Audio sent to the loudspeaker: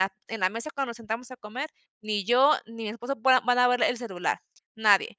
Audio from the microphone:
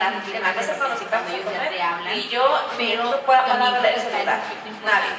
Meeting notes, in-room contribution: present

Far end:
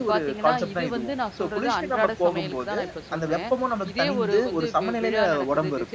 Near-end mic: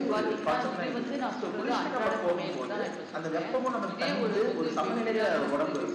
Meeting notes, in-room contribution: none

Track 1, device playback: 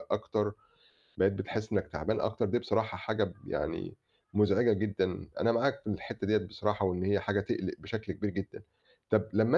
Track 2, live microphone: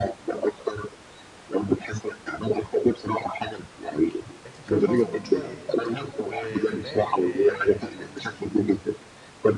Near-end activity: present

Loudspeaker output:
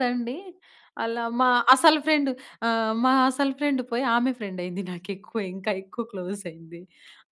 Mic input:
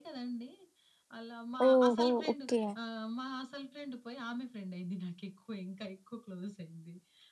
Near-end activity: present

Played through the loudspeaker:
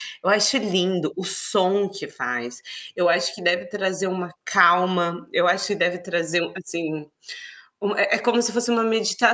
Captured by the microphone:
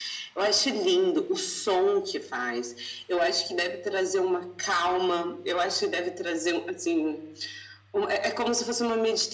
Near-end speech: none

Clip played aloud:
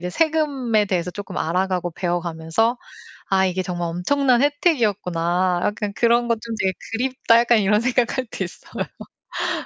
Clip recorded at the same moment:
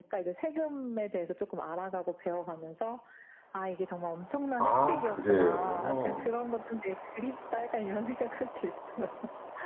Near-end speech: present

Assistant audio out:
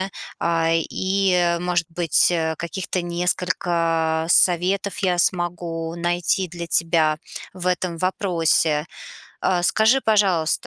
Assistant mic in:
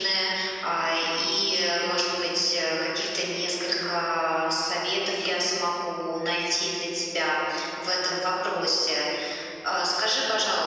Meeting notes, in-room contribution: none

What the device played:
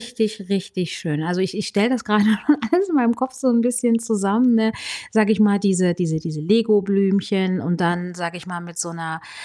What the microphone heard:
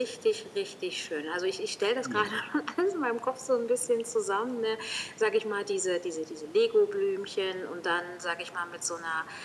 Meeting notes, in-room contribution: present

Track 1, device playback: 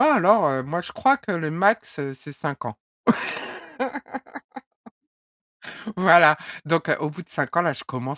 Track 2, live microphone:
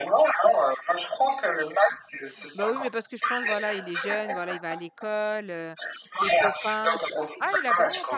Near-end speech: present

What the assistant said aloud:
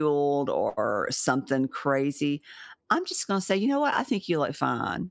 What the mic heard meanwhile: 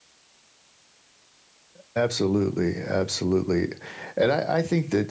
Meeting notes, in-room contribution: present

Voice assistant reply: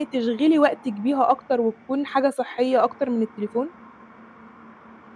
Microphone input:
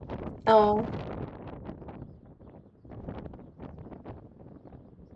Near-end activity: present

